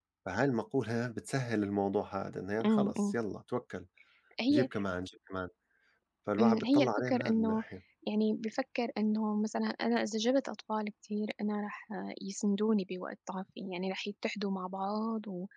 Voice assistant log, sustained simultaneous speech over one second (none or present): present